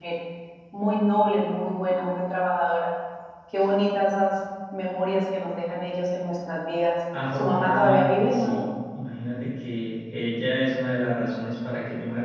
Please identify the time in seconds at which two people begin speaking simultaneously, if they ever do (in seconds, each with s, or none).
7.1 s